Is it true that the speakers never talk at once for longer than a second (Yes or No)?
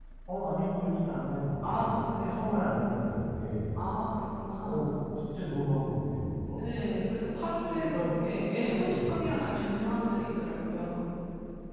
No